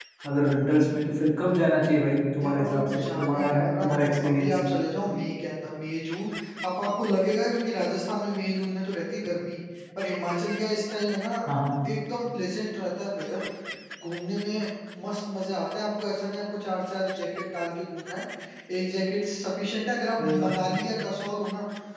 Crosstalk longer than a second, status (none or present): present